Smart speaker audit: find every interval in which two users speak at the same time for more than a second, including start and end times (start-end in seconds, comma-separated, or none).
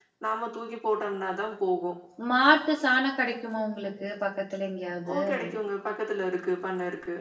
none